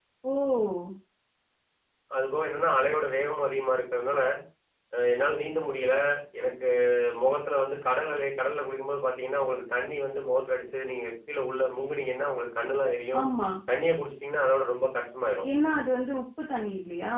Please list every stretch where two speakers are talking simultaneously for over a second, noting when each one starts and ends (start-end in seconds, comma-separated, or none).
none